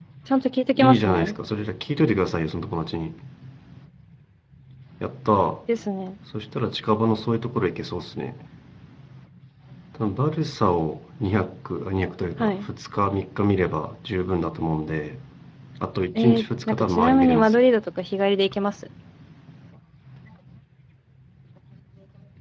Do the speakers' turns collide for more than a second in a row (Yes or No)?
Yes